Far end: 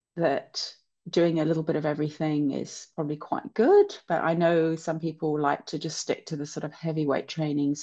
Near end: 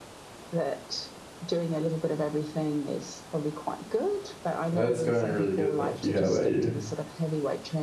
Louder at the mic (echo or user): user